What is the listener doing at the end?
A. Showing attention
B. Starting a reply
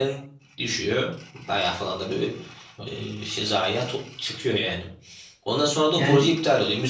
A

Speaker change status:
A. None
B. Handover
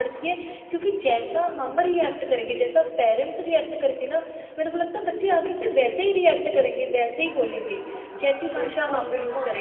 B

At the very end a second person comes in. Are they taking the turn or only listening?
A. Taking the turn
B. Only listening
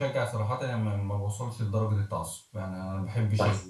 B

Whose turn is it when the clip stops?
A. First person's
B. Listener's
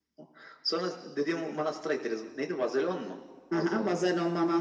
B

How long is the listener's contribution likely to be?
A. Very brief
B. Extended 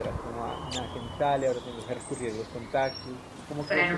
B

